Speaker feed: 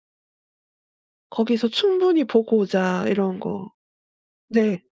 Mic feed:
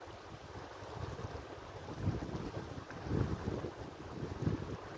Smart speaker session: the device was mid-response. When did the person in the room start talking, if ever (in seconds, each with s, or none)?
none